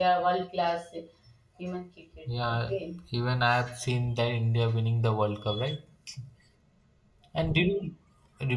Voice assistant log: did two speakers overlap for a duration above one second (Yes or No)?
No